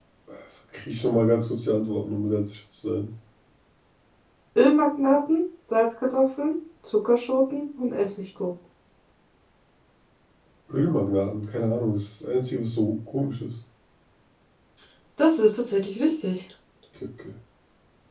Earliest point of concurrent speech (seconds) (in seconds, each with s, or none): none